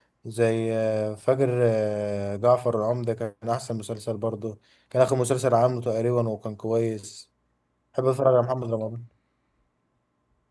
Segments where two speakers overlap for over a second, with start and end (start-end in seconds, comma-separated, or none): none